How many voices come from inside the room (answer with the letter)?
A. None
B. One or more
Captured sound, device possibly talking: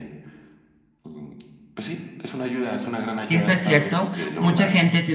B